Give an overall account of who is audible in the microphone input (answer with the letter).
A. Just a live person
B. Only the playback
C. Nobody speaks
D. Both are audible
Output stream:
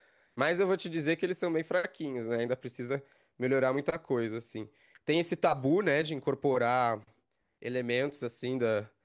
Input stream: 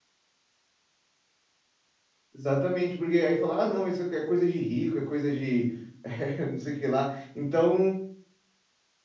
A